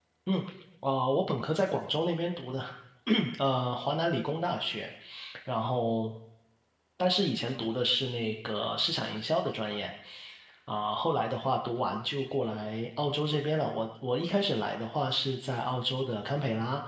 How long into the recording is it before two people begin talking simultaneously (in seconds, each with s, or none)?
none